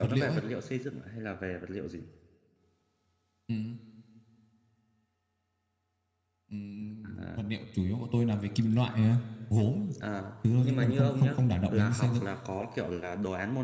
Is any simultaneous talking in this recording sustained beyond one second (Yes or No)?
Yes